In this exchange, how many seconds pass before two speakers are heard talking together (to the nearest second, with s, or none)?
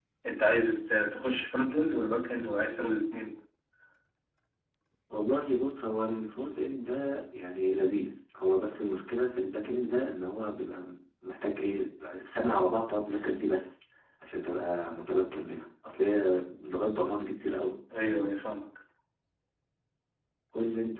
none